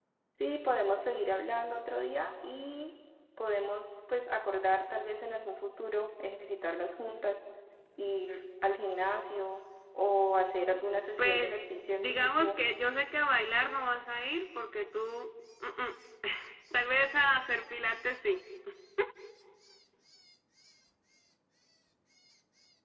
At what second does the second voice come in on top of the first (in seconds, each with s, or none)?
11.2 s